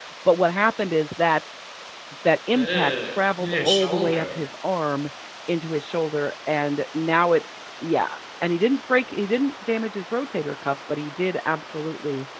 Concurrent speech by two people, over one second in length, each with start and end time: 2.5-4.2

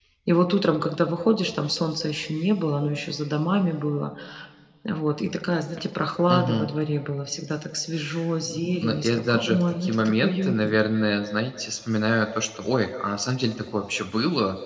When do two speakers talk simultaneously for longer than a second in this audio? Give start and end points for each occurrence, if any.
8.8-10.7

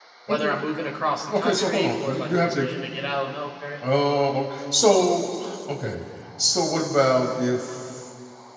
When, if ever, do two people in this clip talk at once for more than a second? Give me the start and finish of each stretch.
1.4-2.7

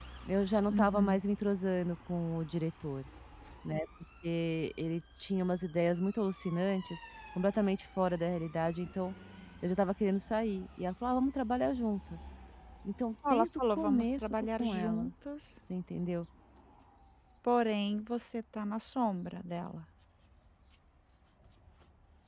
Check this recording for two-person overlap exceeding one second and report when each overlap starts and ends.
13.3-15.1

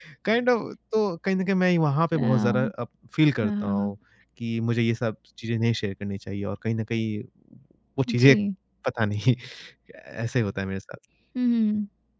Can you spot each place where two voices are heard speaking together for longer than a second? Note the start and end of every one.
none

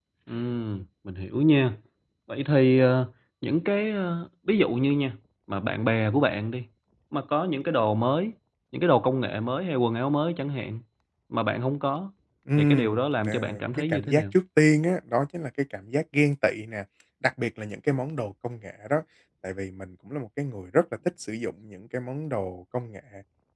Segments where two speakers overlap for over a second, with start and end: 12.6-14.2

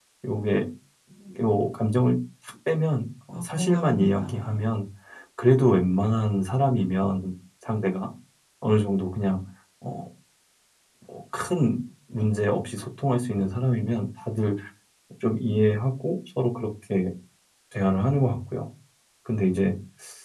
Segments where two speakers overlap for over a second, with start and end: 3.3-4.7

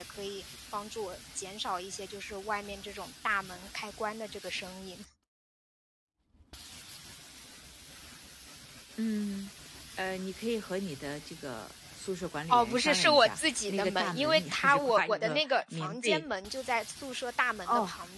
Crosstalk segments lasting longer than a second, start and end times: 12.5-16.2

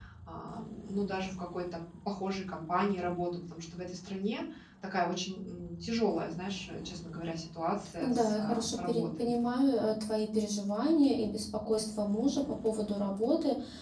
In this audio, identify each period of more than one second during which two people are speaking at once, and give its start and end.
8.0-9.3

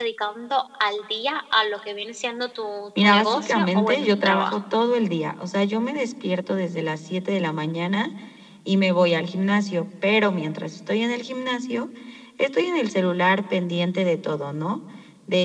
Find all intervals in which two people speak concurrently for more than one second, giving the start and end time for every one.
3.0-4.6

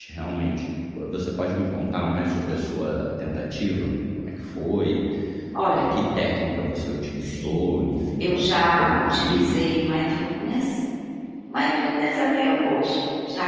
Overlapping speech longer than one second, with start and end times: 8.2-9.7

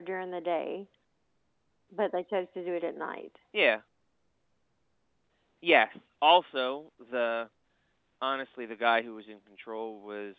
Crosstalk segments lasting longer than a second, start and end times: none

